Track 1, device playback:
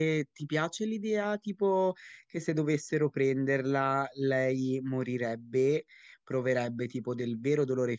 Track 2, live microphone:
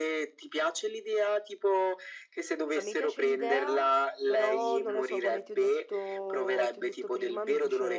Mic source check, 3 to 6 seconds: both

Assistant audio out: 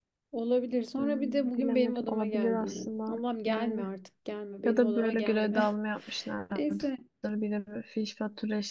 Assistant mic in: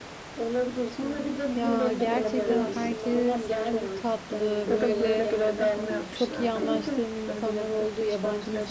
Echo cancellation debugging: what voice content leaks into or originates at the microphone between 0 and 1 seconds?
echo only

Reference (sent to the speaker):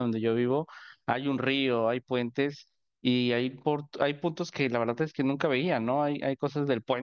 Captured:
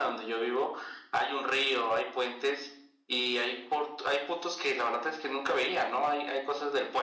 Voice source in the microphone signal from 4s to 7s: echo only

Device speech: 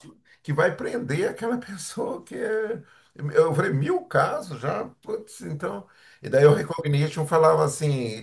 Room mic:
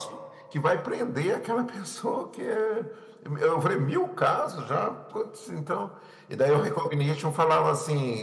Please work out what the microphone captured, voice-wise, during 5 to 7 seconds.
echo only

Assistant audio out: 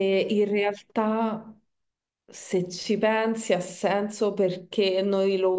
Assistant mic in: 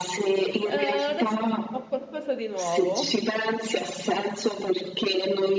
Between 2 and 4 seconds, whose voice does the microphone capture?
both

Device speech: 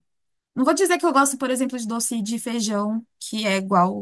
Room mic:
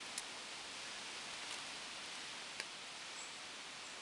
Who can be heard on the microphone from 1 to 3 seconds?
neither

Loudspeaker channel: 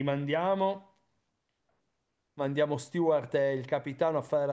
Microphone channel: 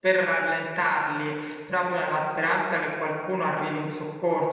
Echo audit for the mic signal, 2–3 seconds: user only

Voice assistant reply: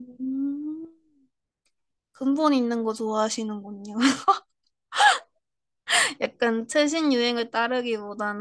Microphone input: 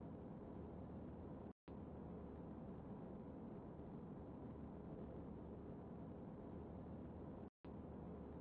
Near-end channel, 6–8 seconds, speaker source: neither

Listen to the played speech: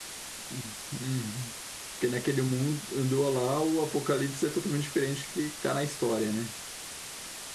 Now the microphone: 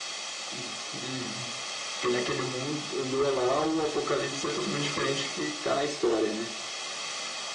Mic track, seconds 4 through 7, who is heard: echo only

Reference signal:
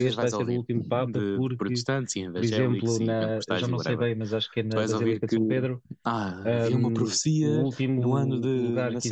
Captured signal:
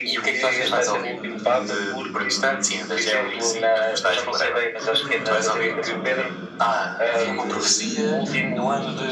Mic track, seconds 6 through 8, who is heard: both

